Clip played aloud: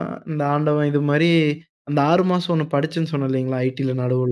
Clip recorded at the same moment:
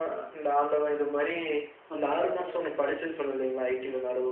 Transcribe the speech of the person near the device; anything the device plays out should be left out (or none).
அப்பாடா!